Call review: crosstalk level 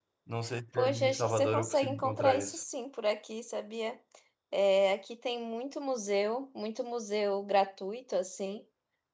present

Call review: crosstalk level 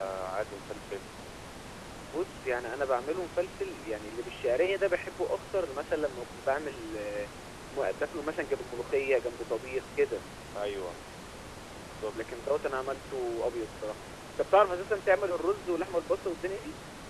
none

